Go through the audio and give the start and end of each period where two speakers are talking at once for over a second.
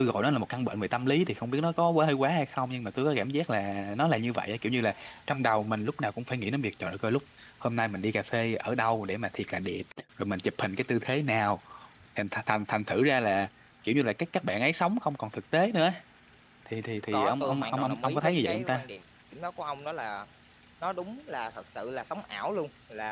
17.1-18.9

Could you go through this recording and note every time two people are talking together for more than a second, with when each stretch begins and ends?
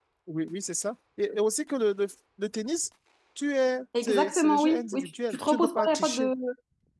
4.0-6.3

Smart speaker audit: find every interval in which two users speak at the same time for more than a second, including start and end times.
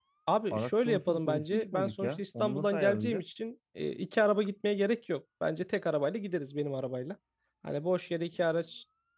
0.5-3.2

